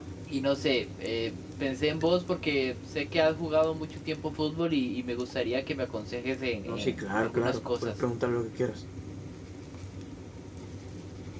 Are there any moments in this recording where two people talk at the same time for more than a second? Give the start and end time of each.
6.7-8.0

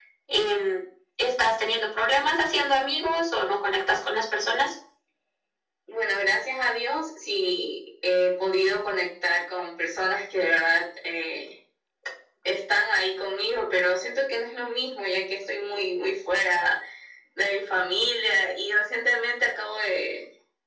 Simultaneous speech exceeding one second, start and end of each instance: none

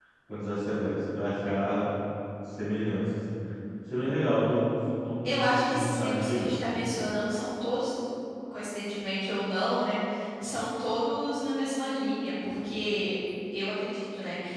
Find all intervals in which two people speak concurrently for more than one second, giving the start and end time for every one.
5.2-6.6

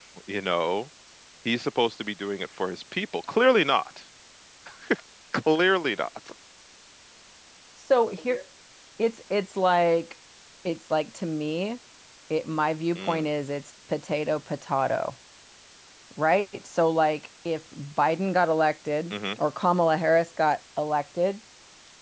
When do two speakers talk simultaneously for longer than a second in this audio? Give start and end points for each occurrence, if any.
none

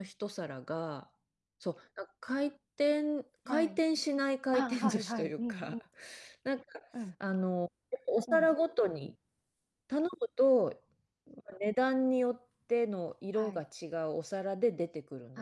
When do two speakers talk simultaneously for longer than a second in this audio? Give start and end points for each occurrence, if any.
4.5-5.7

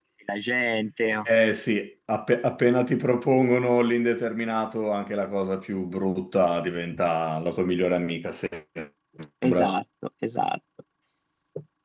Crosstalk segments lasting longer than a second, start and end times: none

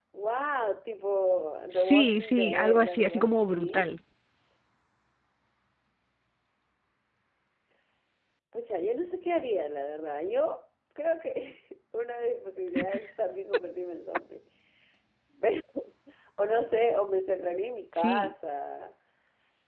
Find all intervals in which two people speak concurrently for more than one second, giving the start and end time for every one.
1.7-3.9

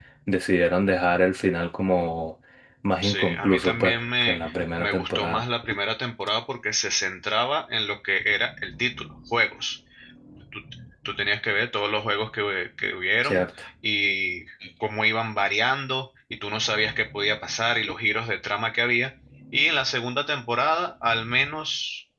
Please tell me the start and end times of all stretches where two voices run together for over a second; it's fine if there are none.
3.0-5.4

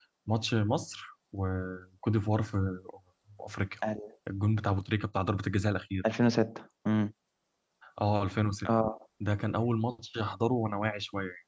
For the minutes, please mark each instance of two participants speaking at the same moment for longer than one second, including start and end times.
none

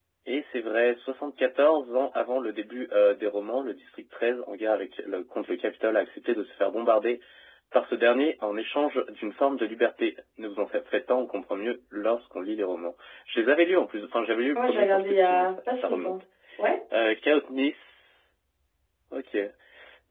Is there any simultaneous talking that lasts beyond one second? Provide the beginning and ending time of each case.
14.6-16.1

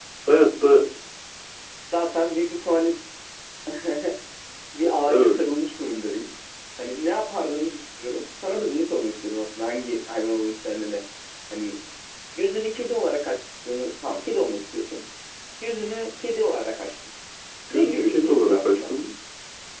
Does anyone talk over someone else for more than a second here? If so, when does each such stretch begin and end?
17.7-18.9

